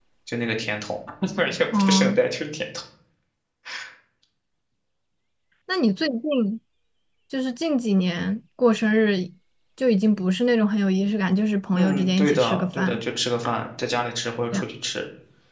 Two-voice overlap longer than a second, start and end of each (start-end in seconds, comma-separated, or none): 11.7-13.0